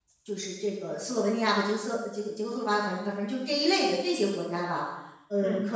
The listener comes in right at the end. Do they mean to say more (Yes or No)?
No